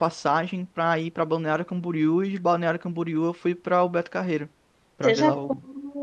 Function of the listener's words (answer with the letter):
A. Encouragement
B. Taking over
B